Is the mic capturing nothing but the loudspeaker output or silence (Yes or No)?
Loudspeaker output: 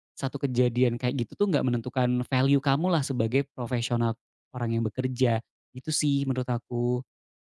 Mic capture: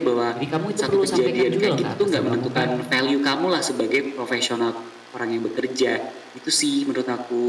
No